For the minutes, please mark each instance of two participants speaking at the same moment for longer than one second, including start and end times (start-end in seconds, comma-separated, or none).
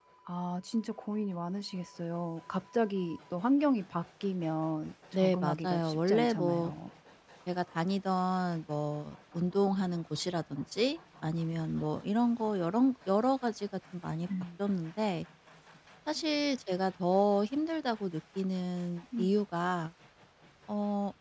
5.2-6.7